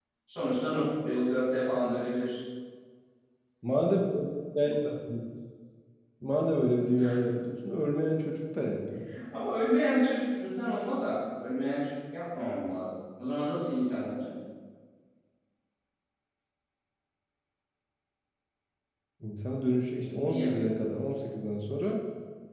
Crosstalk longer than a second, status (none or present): none